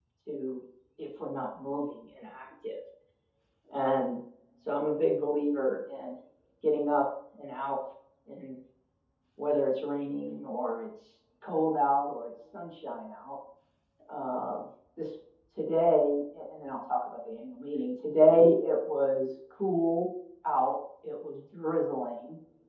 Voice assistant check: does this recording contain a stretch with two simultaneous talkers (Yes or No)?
No